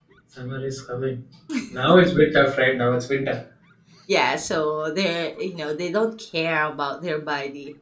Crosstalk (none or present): none